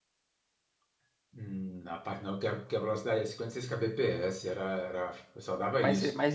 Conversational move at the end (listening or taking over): taking over